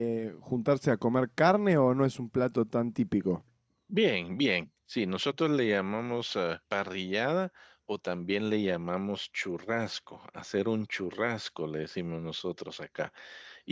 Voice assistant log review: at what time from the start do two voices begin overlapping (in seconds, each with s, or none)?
none